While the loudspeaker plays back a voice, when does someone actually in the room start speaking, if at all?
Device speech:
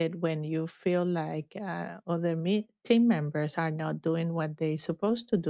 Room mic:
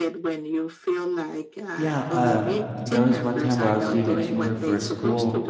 1.7 s

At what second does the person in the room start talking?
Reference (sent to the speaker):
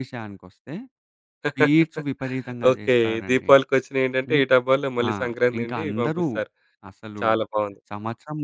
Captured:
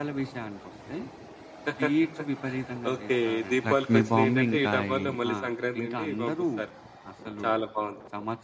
3.7 s

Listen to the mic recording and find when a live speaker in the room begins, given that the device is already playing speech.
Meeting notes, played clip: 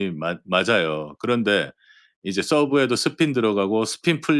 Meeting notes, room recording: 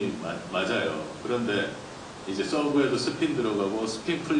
none

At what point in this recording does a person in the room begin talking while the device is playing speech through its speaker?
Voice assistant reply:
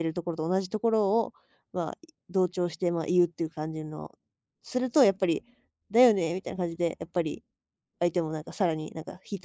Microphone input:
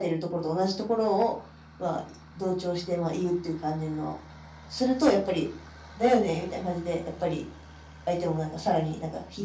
none

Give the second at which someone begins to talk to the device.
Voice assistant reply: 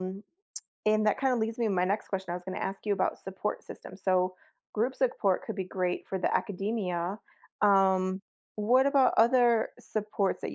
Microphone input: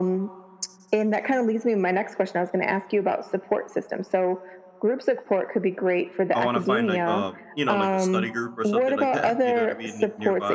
6.3 s

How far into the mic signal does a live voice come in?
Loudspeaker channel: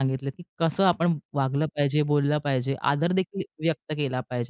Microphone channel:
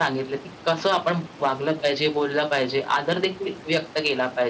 none

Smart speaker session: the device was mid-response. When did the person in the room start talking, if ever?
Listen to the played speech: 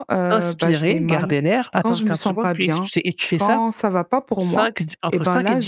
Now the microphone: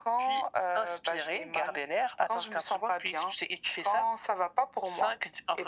none

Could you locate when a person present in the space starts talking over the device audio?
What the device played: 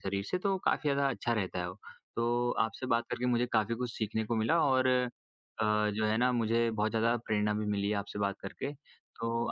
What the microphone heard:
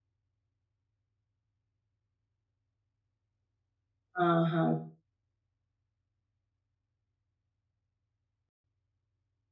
4.1 s

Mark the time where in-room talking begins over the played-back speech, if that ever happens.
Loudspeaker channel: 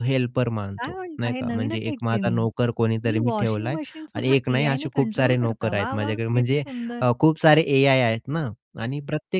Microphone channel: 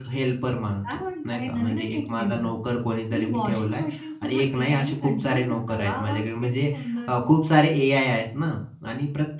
none

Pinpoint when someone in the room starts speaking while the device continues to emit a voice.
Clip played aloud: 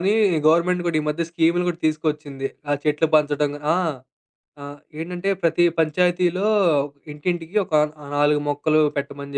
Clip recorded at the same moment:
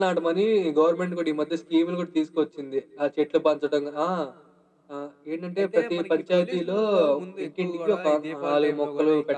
5.6 s

